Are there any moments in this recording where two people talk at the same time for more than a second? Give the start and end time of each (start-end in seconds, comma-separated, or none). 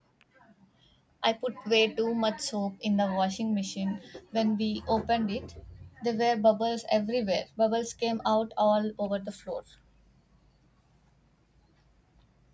none